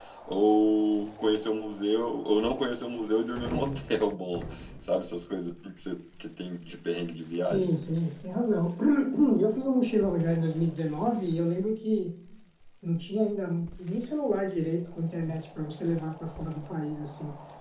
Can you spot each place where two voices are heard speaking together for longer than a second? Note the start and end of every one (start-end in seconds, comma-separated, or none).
none